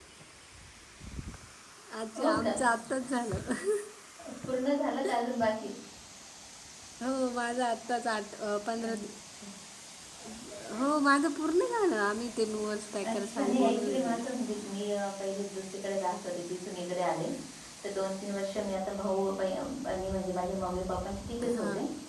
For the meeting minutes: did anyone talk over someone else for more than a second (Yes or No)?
Yes